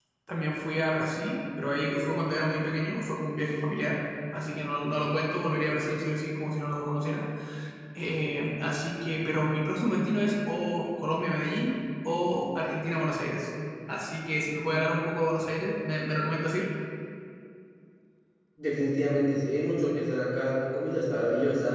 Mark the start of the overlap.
none

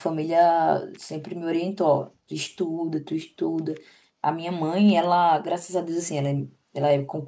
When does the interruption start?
none

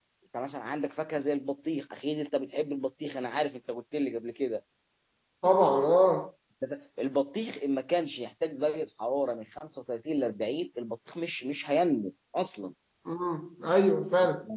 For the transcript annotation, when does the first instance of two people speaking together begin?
none

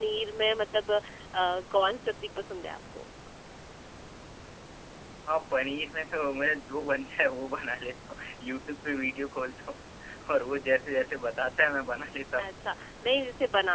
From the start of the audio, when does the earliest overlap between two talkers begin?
none

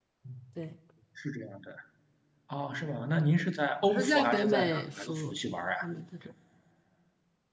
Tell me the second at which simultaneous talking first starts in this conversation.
3.8 s

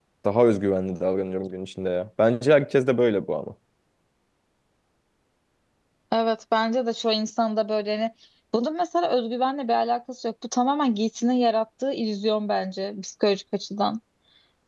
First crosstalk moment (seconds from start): none

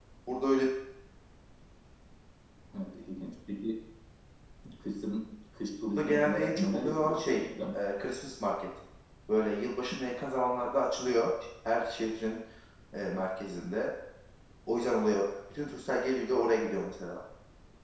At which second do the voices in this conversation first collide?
6.0 s

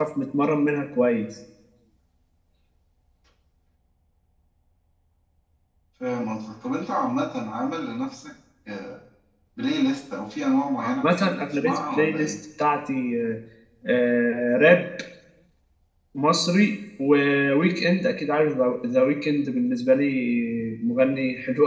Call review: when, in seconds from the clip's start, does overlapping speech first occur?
10.8 s

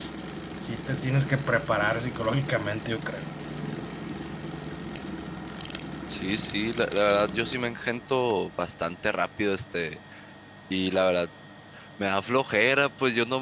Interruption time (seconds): none

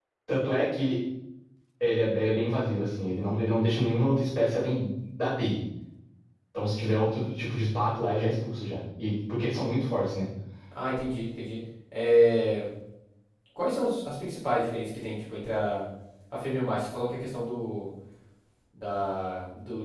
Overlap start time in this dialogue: none

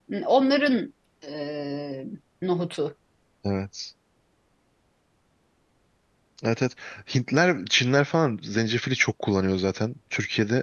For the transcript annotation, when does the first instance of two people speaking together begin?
none

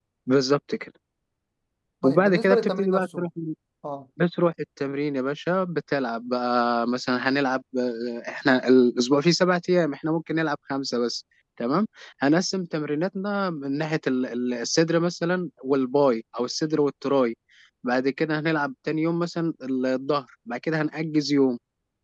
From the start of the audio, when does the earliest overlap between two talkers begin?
2.0 s

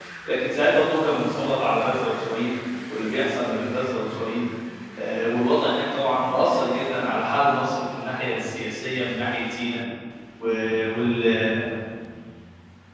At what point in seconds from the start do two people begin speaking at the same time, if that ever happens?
none

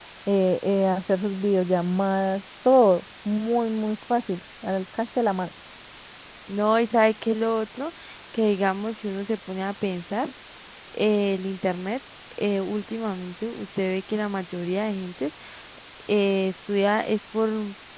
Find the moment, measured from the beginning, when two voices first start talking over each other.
none

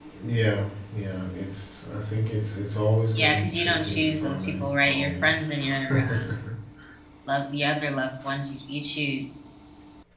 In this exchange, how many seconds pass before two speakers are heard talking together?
3.1 s

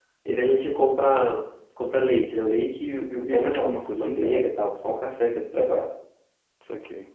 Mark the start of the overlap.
3.2 s

